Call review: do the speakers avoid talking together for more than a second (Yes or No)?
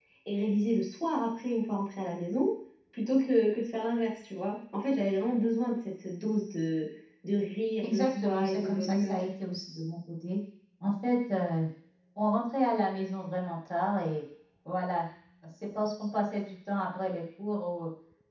No